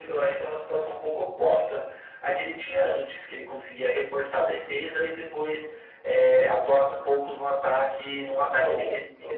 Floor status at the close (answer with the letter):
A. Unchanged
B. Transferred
B